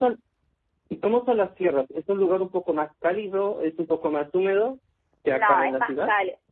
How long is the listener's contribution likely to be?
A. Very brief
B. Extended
B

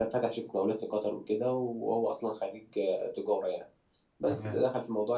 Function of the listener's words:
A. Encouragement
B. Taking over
A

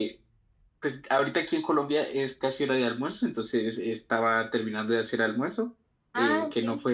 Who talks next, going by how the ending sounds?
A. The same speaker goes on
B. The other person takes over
A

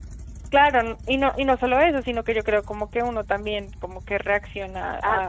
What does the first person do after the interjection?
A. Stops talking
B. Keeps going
A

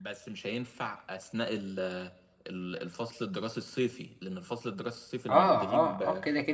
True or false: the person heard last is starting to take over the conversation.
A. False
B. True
B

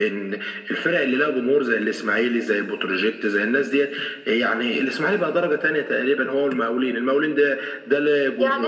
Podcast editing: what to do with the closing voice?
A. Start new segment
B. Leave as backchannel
A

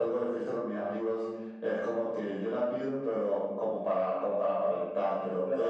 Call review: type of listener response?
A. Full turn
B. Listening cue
A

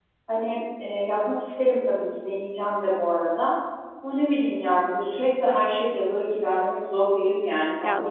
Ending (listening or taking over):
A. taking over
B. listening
A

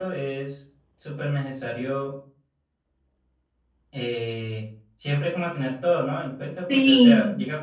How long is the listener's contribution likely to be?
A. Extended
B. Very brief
B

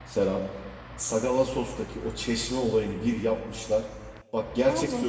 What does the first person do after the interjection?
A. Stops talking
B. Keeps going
B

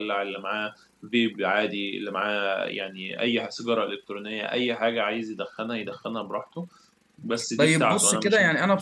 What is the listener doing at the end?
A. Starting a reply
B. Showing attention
A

